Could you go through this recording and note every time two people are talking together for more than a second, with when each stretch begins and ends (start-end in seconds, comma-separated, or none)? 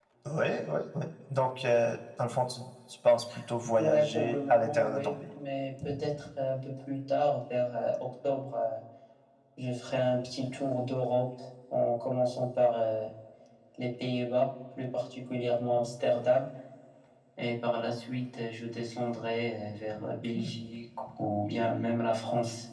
3.8-5.1